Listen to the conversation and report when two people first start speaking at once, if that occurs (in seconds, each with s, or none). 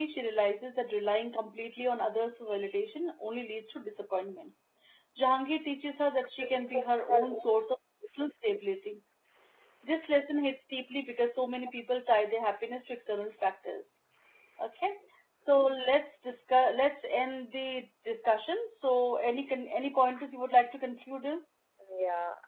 6.4 s